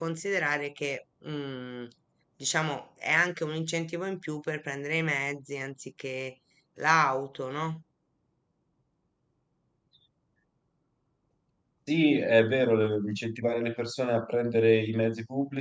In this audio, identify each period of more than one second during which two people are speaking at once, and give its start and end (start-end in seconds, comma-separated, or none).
none